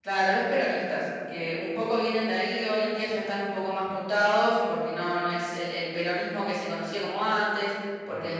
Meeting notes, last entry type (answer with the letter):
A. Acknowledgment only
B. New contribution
A